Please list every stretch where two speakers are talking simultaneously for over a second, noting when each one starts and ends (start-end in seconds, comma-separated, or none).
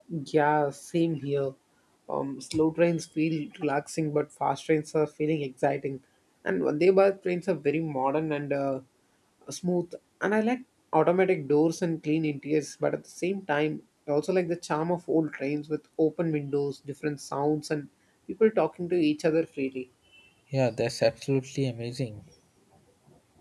none